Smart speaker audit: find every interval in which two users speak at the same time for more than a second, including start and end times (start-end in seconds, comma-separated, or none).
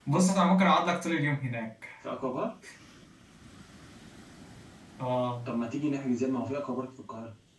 none